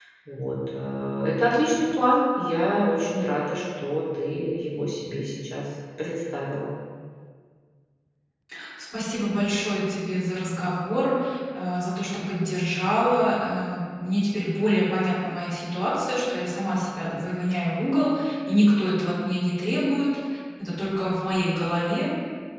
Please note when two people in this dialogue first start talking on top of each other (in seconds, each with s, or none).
none